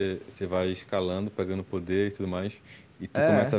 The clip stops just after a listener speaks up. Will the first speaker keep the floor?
Yes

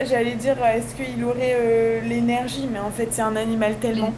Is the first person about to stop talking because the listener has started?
No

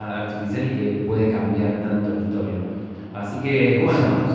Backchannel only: Yes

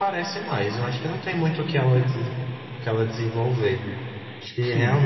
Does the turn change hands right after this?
Yes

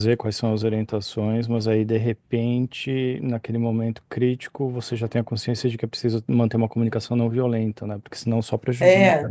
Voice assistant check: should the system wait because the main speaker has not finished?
No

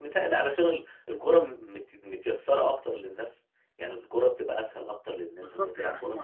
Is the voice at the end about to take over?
Yes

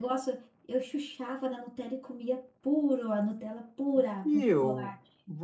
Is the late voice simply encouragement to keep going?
No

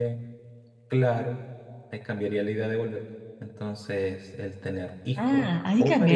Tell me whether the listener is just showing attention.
No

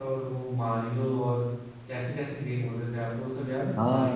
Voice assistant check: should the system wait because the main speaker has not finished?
No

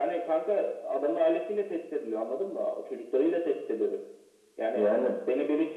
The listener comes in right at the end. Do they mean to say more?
No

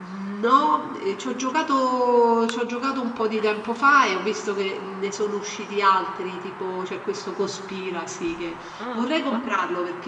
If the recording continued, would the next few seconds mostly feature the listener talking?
No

